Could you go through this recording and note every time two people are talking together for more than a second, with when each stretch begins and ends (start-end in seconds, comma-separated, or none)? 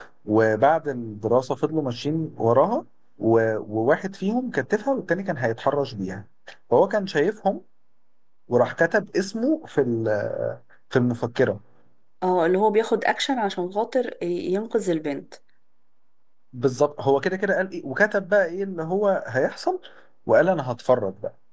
none